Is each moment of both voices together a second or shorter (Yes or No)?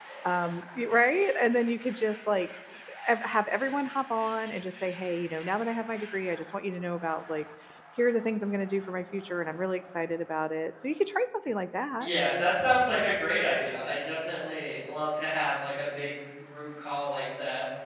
Yes